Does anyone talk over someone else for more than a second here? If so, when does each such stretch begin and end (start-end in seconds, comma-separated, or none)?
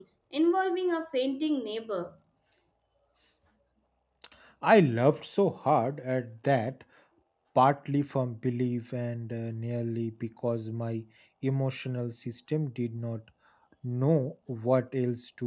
none